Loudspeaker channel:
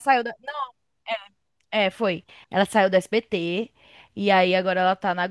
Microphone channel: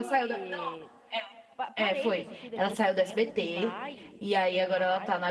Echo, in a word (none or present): present